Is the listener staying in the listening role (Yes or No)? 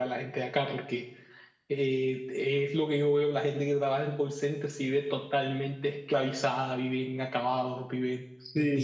No